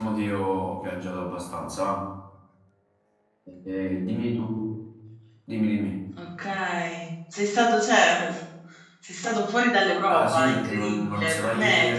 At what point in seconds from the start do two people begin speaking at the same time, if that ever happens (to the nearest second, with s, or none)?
10 s